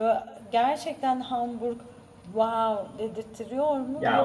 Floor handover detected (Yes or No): Yes